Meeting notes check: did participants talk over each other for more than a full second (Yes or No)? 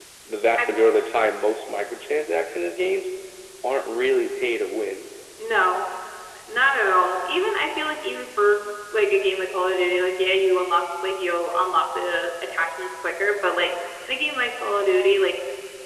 No